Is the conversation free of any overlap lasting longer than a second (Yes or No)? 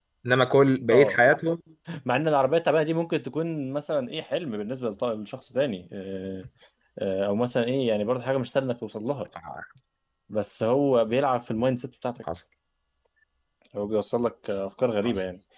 Yes